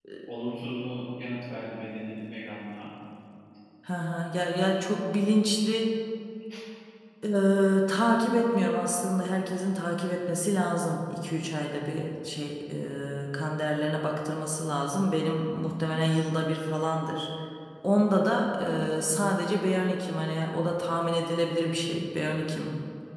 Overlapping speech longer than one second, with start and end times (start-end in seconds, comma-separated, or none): none